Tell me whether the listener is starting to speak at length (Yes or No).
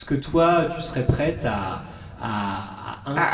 No